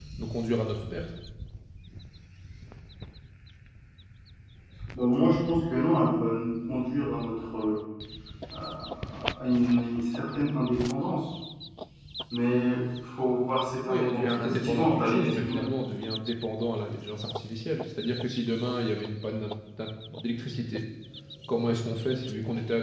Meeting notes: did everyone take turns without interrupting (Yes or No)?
No